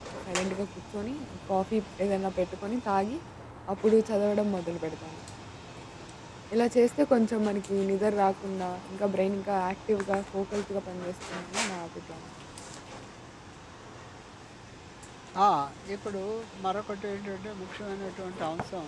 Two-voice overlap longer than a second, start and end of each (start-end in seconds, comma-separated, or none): none